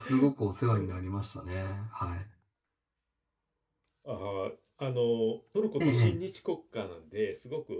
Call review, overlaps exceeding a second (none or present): none